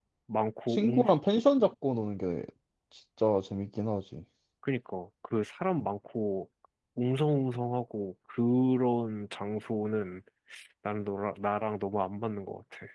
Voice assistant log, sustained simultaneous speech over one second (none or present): none